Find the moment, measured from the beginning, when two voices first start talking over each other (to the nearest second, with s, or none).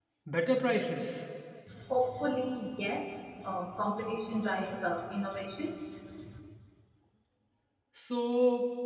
none